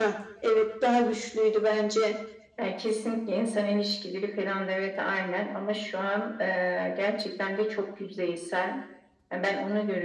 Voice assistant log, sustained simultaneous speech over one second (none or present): none